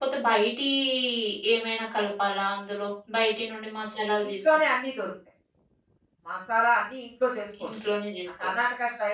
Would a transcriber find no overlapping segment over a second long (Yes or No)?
Yes